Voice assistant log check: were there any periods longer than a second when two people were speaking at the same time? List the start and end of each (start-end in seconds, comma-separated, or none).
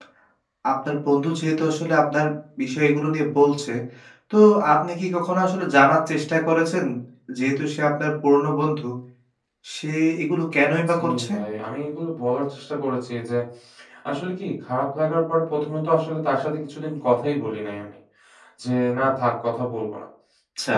none